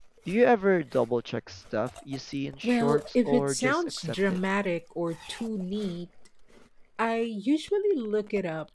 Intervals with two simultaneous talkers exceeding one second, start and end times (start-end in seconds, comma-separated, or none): 2.6-4.4